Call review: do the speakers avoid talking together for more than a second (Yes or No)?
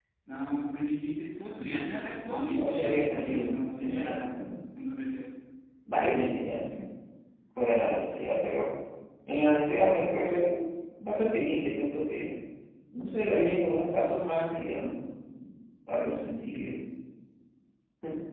No